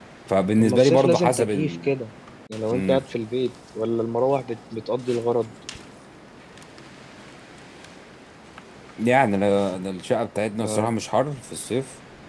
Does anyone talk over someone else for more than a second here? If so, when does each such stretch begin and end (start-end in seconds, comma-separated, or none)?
0.6-1.9